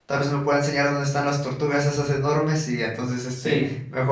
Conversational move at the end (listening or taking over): listening